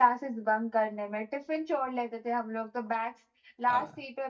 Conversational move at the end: listening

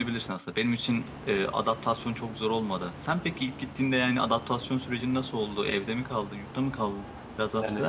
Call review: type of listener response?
taking over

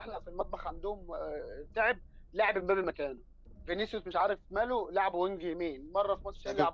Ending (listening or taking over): taking over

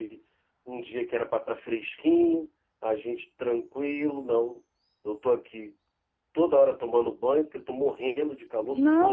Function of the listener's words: taking over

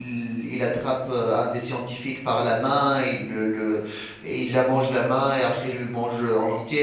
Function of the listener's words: listening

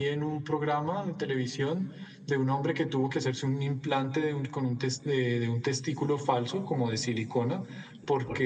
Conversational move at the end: listening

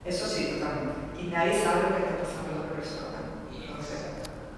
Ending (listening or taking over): taking over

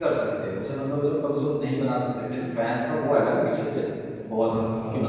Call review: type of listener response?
listening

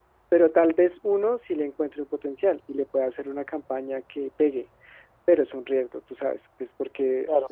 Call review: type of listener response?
taking over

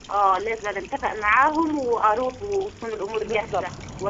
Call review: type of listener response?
taking over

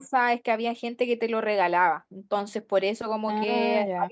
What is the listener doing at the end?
listening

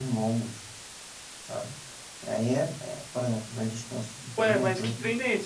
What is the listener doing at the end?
taking over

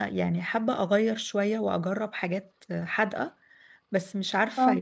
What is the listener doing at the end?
listening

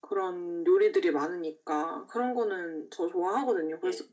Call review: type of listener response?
listening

